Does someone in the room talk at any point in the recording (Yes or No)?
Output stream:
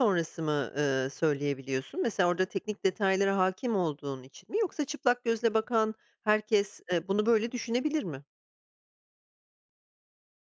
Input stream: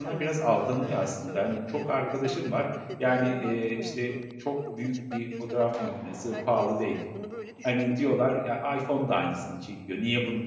Yes